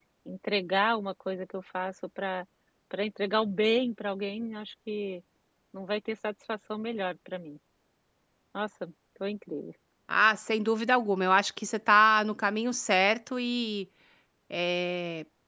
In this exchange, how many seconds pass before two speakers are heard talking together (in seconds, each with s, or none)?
none